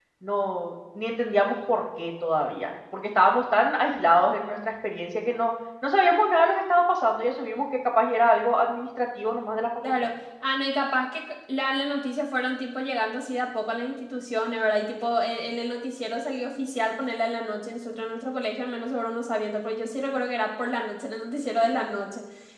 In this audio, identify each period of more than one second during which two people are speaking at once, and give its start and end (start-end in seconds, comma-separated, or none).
none